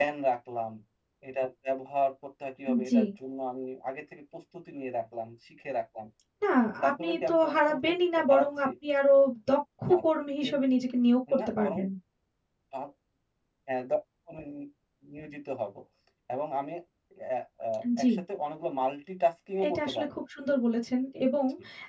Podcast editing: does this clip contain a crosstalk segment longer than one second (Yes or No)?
Yes